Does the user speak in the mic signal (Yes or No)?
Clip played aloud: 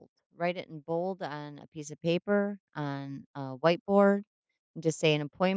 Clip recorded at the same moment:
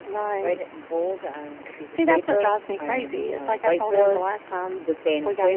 Yes